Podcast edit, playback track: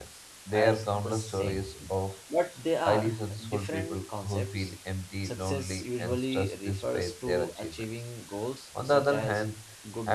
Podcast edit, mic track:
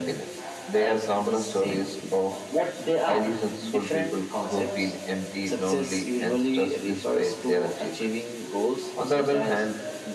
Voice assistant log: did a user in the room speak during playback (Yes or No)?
Yes